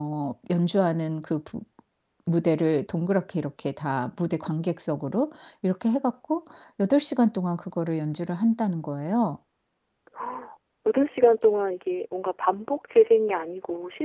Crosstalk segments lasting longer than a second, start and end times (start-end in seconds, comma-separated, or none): none